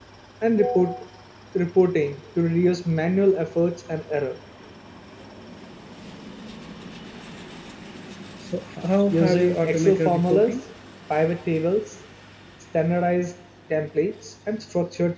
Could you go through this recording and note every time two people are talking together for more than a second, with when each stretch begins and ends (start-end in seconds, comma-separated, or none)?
9.1-10.6